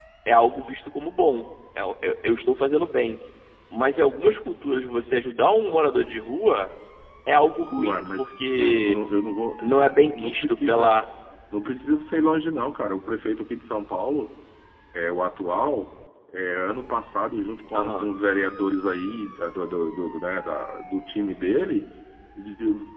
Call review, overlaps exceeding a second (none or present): present